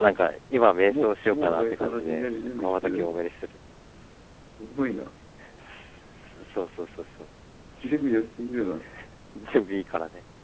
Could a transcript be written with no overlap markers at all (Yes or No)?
No